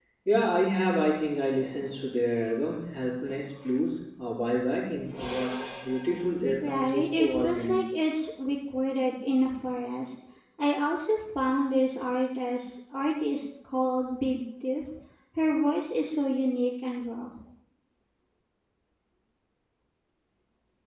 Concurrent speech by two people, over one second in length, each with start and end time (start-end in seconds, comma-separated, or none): 6.6-7.8